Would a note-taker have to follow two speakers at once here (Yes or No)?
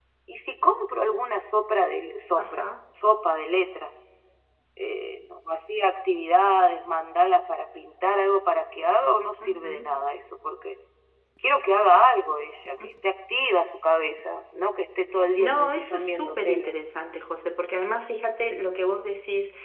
Yes